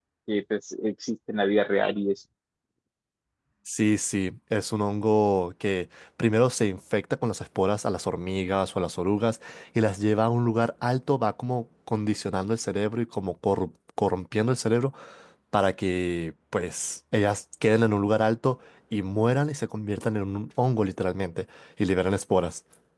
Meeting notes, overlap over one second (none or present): none